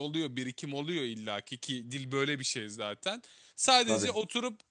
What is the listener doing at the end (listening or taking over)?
listening